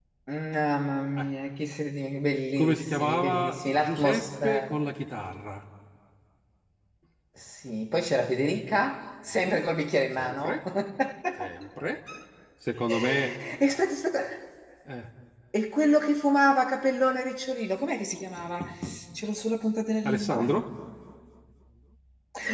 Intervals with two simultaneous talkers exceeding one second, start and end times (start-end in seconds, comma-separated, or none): 2.6-4.8